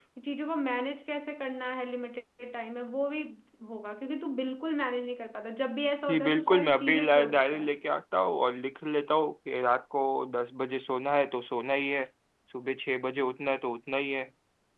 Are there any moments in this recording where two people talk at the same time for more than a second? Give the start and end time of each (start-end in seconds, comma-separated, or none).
6.1-7.7